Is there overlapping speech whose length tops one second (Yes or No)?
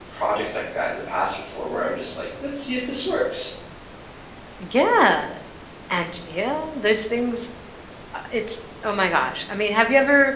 No